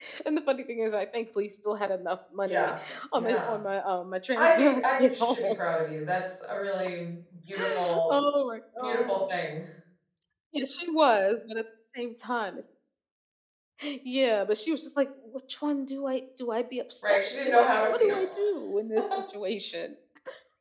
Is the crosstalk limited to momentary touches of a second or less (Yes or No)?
No